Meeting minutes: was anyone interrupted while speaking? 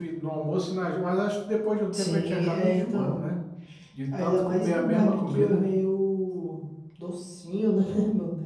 Yes, from 1.9 s

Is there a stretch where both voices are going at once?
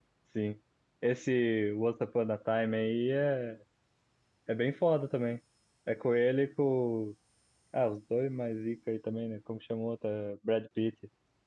No

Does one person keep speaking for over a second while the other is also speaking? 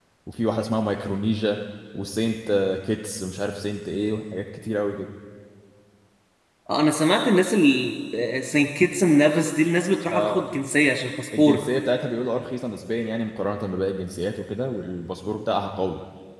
No

